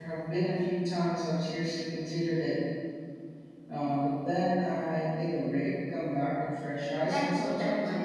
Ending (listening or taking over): taking over